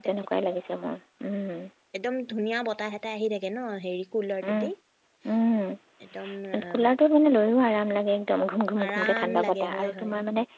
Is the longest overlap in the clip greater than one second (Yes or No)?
Yes